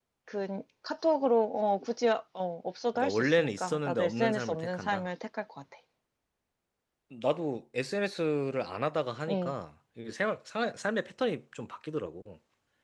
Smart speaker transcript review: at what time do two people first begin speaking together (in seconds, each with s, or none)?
3.0 s